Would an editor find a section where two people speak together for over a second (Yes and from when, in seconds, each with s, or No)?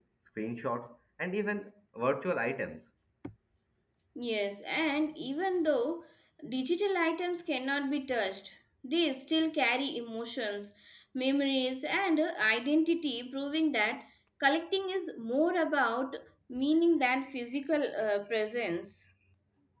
No